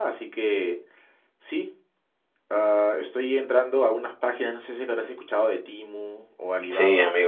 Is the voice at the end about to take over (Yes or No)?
Yes